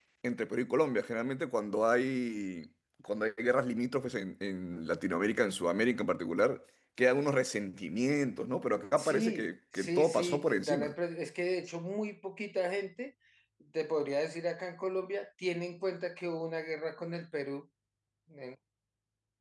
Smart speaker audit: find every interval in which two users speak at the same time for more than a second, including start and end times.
9.0-10.9

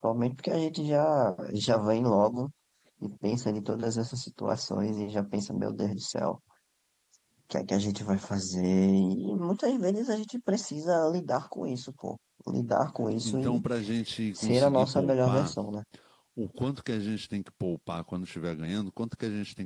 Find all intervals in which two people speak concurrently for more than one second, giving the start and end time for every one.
14.3-15.6

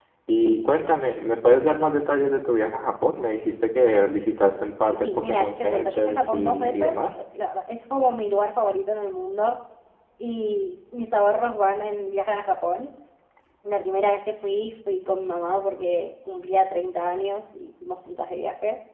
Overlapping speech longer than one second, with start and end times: 5.0-7.0

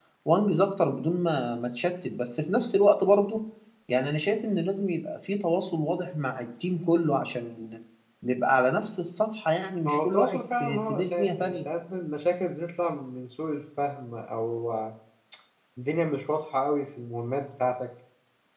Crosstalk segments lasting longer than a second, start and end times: 9.9-11.6

